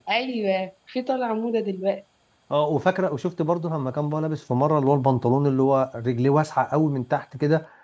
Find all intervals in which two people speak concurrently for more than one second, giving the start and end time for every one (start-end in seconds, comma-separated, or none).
none